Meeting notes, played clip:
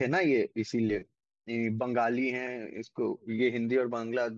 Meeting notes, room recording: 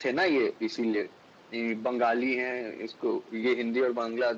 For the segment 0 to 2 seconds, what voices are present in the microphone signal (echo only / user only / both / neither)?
echo only